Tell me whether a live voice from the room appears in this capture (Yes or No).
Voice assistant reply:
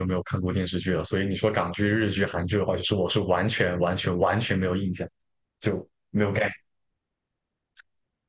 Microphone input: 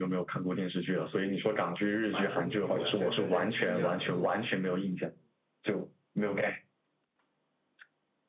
Yes